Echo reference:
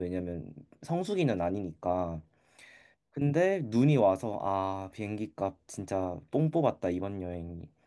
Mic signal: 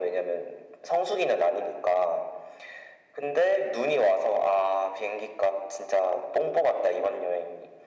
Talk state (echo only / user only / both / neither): echo only